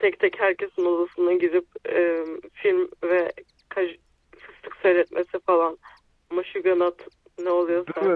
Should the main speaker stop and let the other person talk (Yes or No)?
Yes